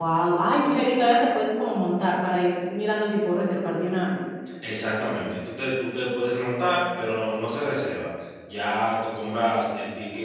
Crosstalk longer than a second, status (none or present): none